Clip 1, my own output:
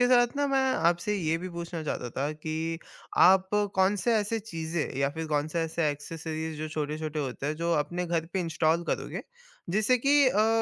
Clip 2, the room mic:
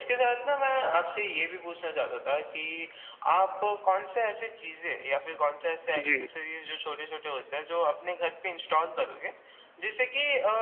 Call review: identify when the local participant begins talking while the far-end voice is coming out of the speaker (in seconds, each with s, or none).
5.9 s